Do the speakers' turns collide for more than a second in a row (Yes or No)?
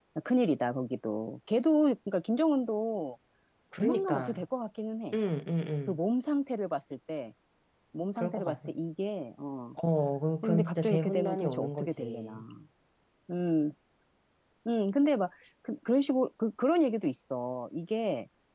Yes